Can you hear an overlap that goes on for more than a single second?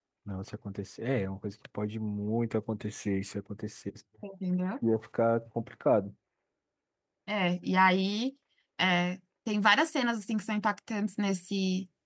No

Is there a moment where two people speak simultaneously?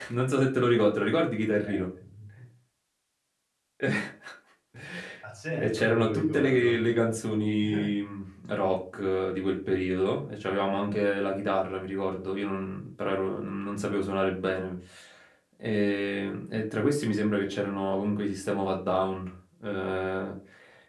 Yes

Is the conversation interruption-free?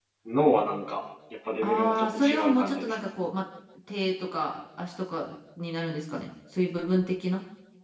No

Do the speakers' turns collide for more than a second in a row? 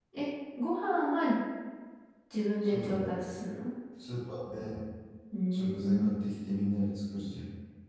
No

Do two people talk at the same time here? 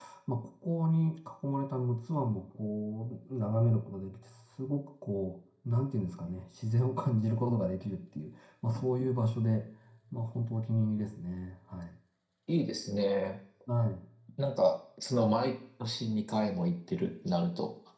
No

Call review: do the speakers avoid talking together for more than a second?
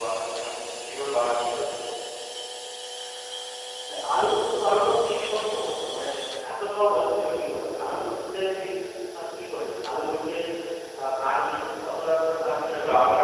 Yes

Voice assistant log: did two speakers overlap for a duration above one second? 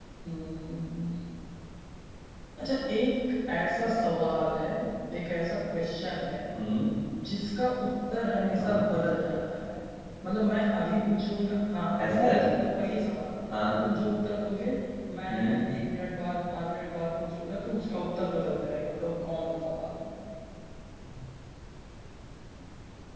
No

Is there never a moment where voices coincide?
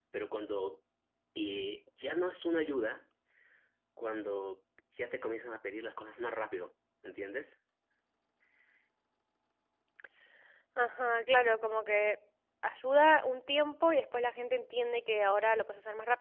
Yes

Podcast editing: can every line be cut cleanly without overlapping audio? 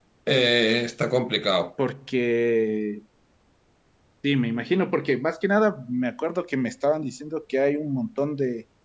Yes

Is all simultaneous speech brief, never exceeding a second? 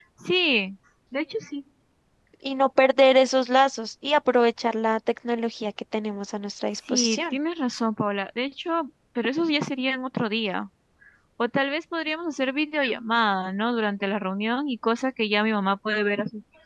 Yes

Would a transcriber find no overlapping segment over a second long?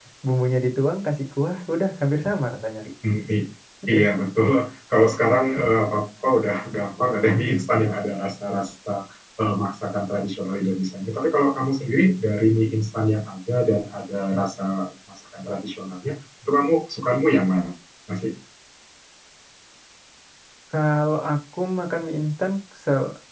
Yes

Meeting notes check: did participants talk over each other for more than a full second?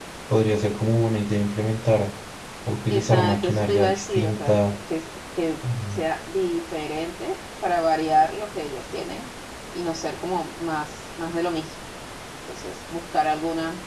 Yes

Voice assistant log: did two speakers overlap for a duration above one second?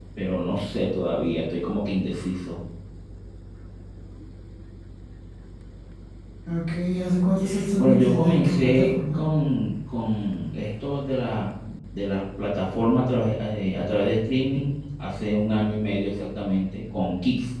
Yes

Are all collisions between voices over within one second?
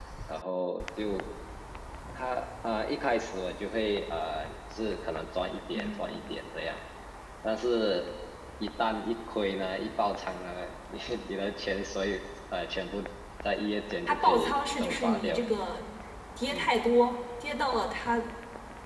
No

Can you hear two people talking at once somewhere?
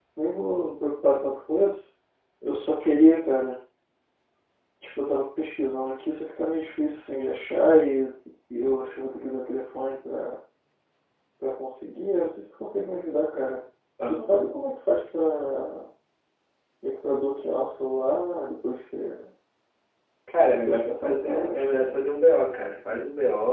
Yes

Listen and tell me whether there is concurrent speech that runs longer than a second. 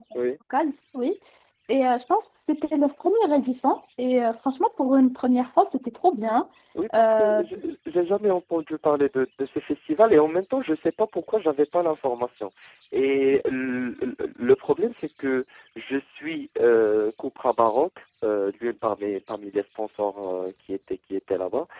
No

